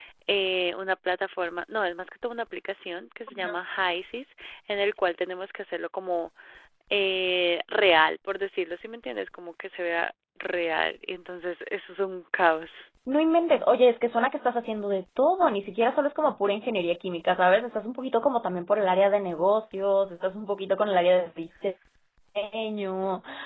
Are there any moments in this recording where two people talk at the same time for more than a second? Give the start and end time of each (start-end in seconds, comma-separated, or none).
none